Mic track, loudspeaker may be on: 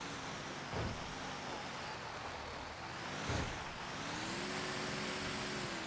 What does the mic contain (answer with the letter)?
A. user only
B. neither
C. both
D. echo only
B